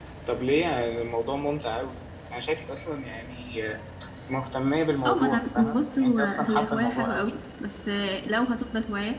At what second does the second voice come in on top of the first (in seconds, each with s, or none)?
5.0 s